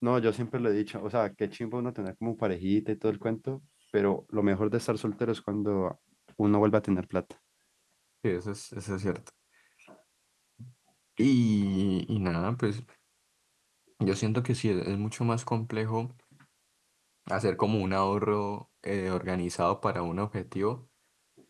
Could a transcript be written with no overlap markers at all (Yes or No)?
Yes